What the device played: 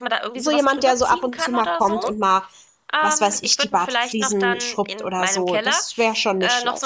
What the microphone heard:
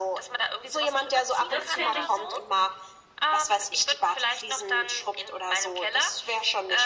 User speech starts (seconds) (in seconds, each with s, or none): 1.5 s